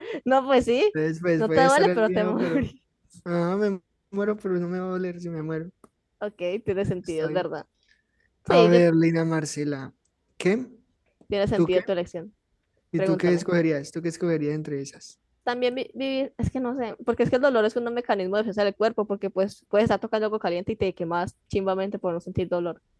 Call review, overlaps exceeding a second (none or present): present